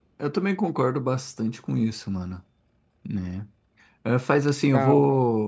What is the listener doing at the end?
listening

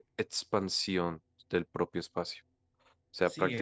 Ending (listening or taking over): taking over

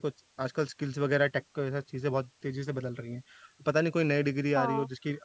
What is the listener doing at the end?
listening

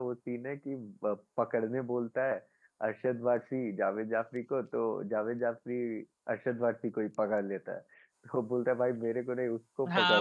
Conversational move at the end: taking over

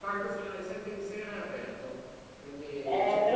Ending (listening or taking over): taking over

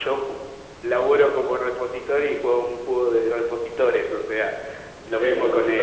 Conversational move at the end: listening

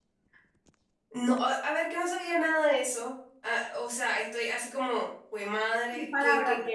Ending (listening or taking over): taking over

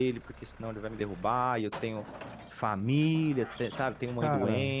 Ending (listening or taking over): listening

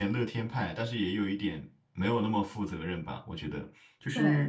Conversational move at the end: listening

